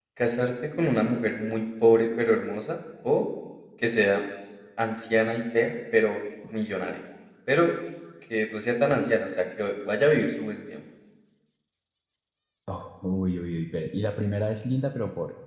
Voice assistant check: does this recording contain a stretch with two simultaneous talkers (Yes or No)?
No